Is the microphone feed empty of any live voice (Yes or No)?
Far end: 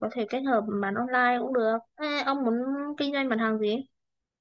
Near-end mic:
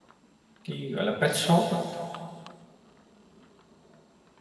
No